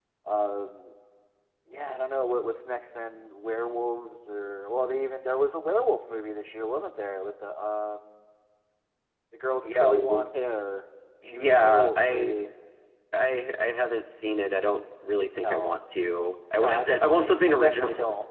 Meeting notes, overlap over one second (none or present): present